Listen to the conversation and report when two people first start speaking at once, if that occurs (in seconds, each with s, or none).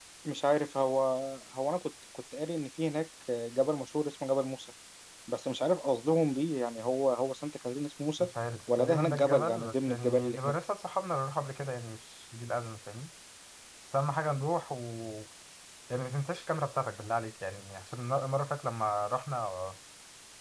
8.8 s